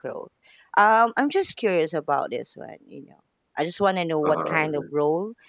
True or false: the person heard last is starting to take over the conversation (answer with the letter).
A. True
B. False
B